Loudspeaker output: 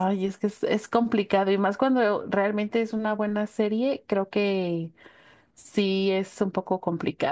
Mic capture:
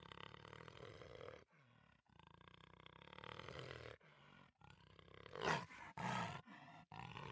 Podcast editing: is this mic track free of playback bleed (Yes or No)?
Yes